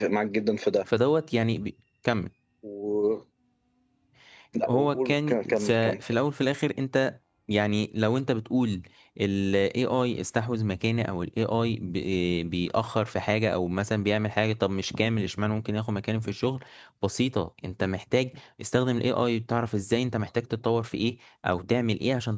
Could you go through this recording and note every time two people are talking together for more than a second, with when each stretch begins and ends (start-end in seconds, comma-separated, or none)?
4.7-6.0